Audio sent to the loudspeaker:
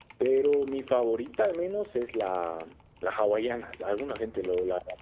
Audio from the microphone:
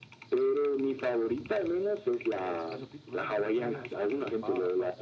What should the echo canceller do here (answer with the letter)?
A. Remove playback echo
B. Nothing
A